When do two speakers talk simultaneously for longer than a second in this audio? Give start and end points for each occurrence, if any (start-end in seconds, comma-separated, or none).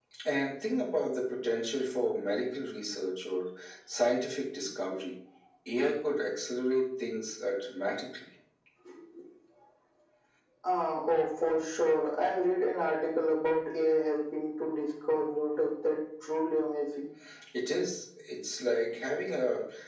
none